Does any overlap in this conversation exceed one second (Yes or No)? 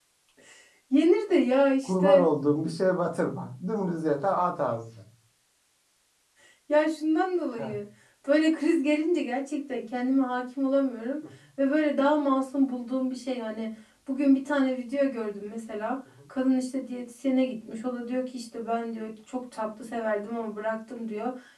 No